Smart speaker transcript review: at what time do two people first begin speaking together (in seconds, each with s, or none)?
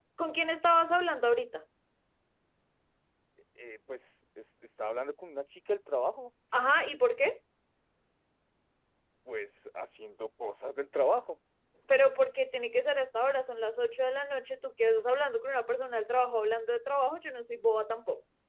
none